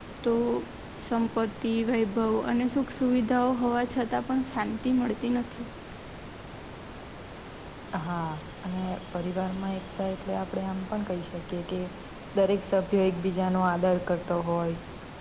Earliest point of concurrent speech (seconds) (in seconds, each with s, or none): none